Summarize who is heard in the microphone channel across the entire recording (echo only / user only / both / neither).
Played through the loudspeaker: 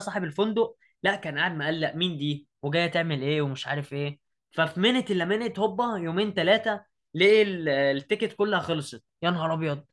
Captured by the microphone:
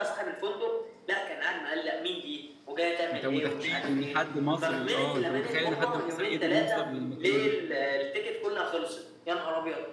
both